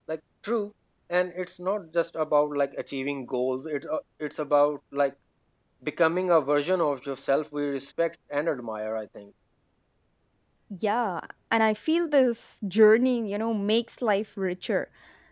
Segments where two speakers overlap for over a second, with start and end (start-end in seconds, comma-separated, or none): none